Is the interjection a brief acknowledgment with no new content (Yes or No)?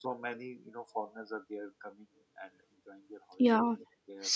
No